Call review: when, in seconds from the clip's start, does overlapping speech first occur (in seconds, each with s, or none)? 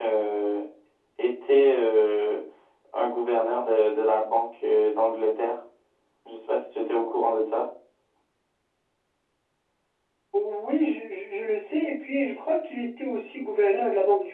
none